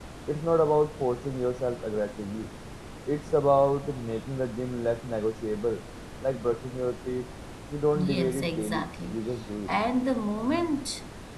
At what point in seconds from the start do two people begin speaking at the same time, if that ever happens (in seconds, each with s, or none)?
7.9 s